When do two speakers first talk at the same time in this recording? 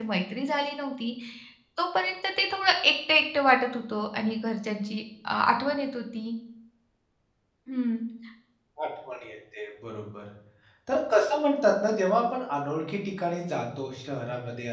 none

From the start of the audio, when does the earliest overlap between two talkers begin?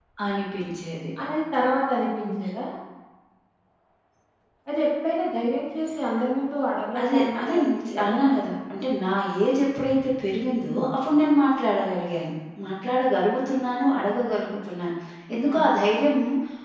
7.0 s

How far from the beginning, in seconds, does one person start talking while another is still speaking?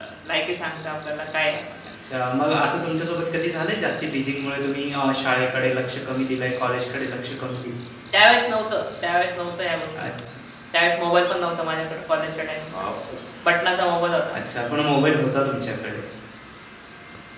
none

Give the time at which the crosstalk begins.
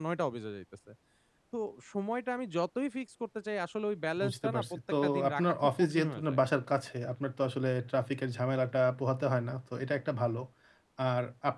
4.2 s

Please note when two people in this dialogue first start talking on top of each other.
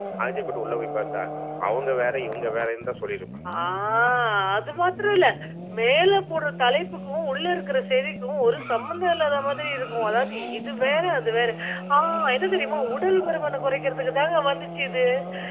none

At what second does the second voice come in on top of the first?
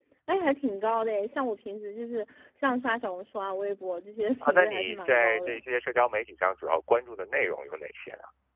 4.4 s

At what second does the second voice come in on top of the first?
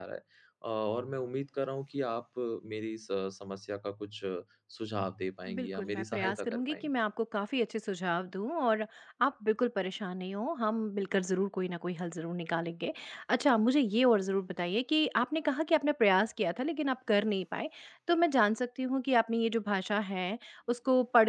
5.5 s

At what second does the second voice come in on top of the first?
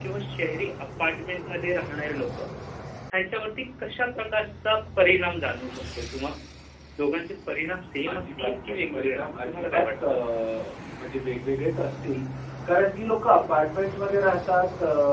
8.1 s

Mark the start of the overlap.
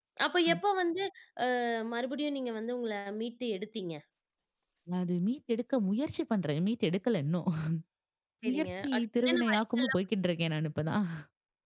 8.5 s

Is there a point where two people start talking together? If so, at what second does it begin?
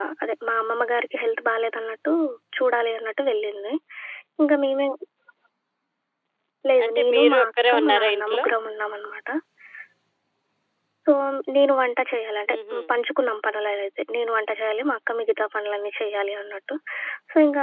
6.8 s

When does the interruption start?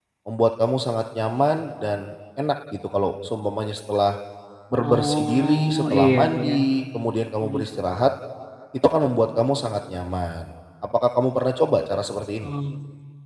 4.8 s

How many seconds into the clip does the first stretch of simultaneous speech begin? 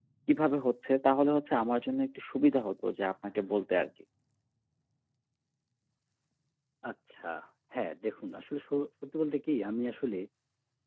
none

